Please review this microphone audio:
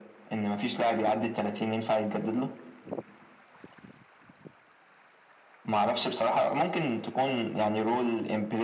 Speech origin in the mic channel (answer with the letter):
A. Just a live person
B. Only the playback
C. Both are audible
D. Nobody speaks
B